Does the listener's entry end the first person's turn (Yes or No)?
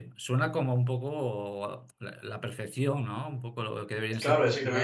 Yes